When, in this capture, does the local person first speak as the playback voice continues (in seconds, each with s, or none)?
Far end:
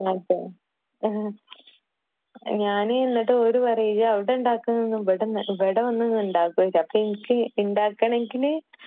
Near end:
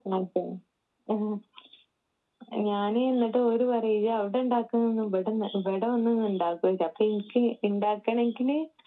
none